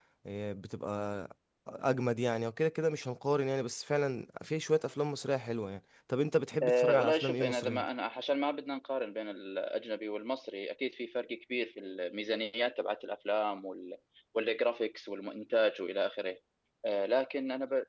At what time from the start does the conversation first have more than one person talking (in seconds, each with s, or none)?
6.6 s